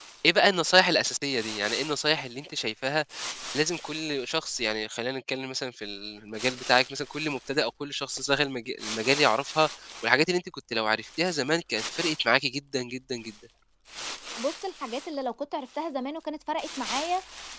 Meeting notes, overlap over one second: none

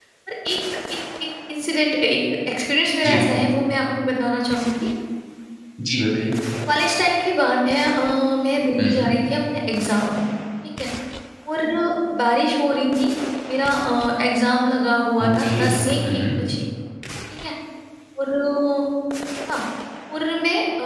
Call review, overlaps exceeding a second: none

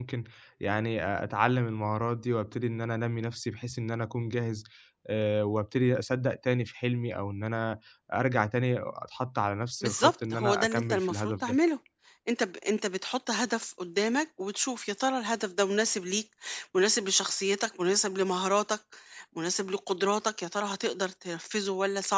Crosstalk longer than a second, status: present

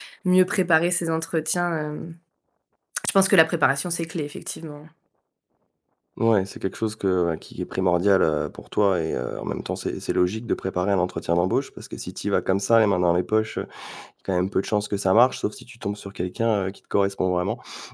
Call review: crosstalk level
none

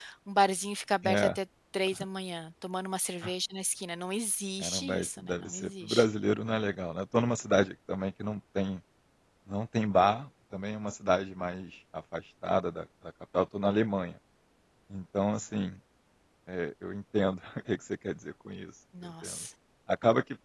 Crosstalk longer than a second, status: present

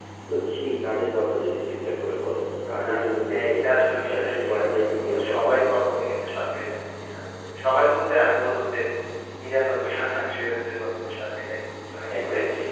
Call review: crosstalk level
present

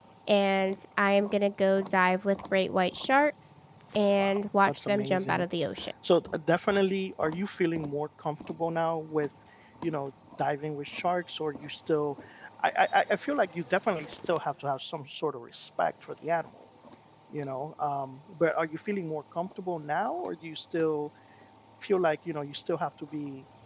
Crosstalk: present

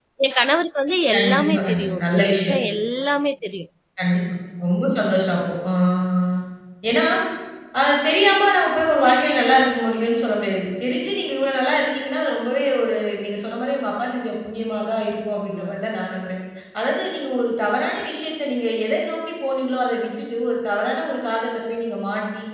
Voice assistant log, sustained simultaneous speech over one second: present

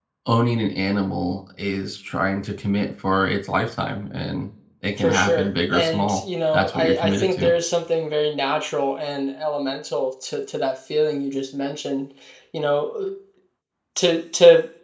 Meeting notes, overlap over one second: present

